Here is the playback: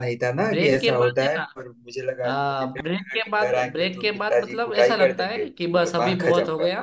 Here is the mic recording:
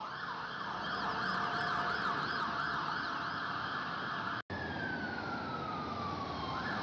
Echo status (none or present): none